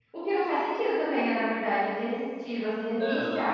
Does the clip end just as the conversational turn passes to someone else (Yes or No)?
No